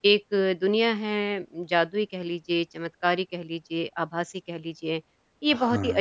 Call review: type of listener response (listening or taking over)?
listening